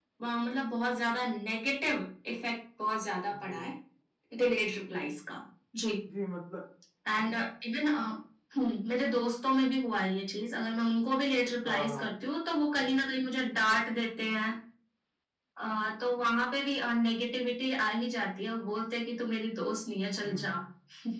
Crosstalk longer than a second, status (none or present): none